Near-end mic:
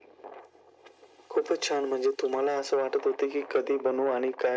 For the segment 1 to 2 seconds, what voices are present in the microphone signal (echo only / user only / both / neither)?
echo only